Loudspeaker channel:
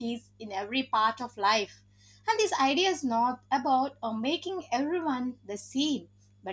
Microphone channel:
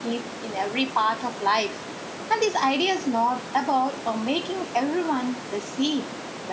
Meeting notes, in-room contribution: none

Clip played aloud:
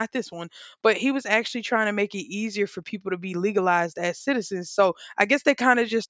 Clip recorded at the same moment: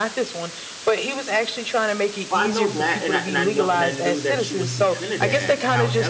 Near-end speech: present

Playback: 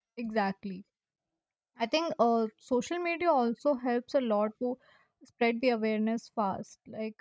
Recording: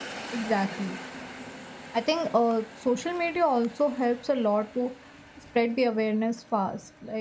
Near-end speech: none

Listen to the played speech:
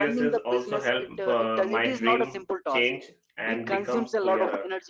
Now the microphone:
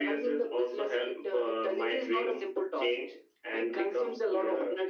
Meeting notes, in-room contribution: none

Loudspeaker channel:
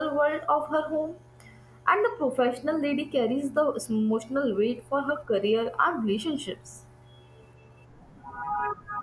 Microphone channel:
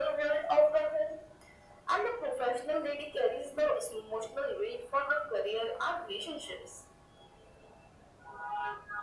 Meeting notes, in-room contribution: none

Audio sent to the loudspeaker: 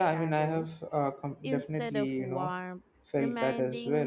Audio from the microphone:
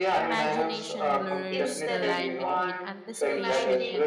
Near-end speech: present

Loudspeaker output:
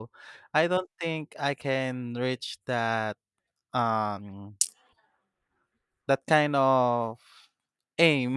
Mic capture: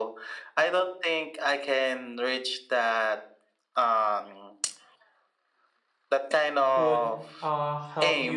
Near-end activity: present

